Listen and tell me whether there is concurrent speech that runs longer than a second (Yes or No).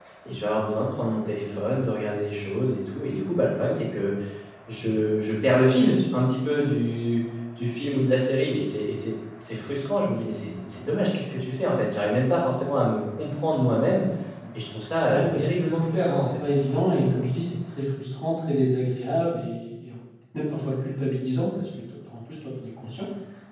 Yes